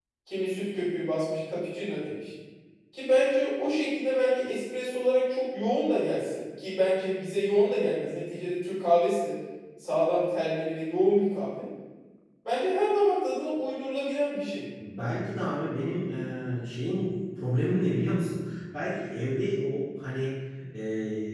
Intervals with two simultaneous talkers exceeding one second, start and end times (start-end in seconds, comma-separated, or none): none